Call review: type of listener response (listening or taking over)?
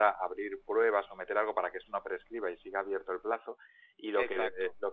listening